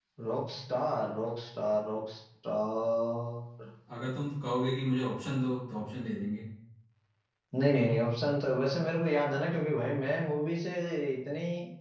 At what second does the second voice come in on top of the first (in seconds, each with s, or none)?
none